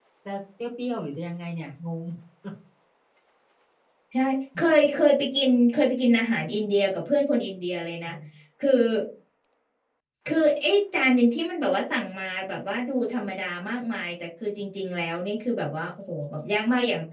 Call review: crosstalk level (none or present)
none